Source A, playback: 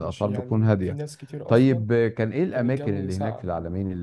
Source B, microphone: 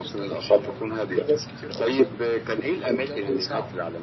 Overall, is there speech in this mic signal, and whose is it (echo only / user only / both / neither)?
echo only